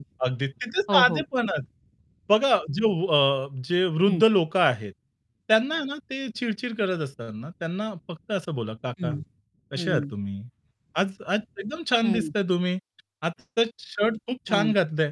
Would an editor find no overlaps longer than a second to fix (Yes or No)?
Yes